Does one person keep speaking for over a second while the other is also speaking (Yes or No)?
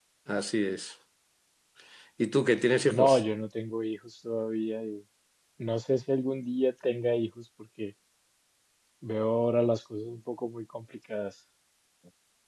No